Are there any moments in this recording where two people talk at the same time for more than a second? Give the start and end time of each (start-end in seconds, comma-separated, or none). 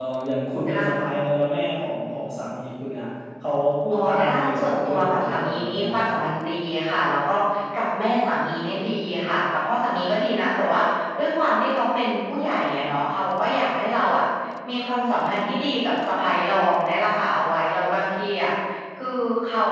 3.9-6.2